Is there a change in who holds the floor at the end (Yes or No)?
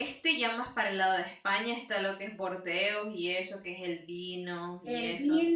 Yes